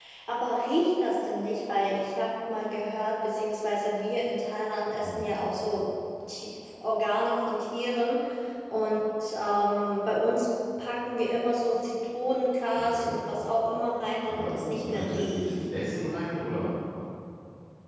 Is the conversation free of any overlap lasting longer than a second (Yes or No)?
No